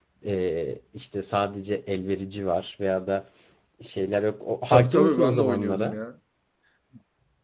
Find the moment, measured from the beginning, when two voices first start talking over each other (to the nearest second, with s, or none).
5 s